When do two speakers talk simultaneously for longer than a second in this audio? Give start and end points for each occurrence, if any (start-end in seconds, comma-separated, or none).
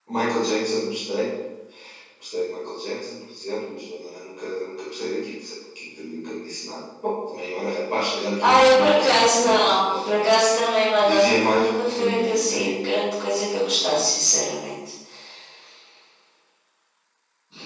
8.4-10.3, 11.0-12.8